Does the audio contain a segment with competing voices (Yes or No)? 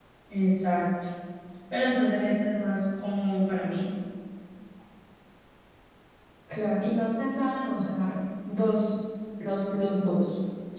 No